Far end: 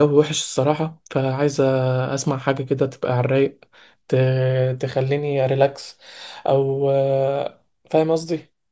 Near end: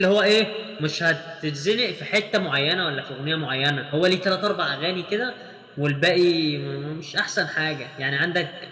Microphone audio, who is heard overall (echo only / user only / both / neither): user only